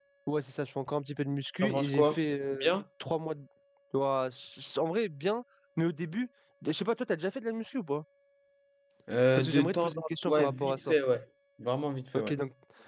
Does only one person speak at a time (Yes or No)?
No